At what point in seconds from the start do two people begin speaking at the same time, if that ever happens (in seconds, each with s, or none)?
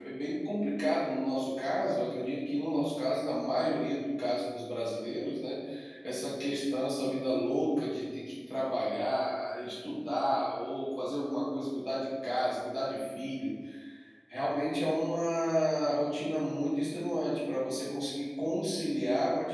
none